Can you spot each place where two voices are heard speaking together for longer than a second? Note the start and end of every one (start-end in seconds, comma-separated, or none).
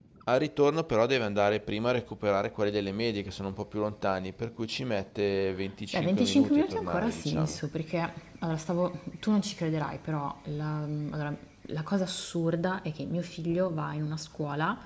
5.9-7.6